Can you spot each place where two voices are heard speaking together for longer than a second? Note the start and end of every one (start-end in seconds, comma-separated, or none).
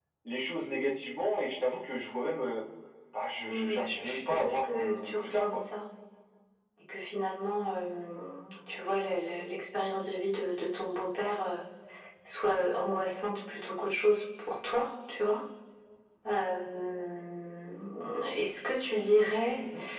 3.5-5.6